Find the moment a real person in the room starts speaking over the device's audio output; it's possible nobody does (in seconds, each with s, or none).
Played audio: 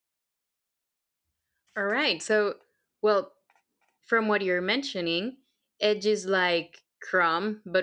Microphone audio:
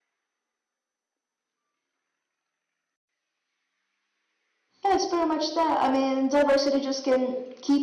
4.8 s